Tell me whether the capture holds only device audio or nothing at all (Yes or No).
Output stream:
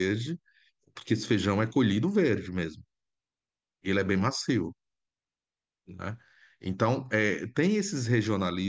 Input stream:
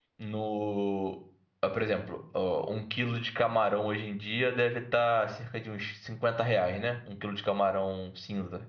No